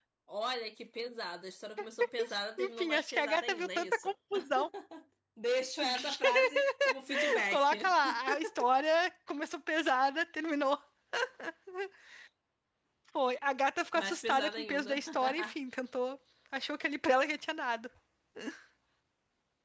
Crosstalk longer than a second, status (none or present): present